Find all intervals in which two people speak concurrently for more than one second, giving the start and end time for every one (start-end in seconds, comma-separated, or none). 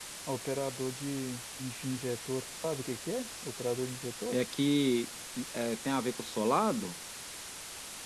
none